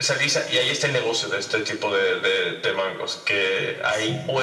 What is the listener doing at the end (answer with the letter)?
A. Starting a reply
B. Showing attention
B